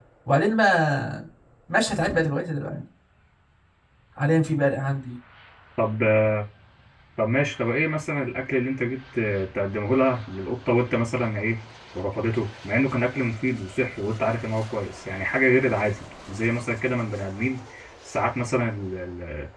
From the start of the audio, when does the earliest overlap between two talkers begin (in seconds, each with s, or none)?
none